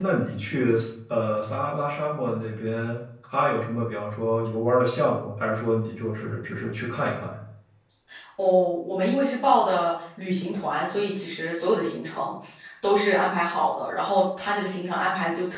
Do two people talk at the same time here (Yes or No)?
No